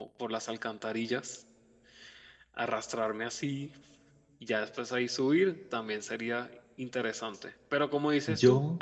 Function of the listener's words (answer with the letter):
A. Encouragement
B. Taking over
A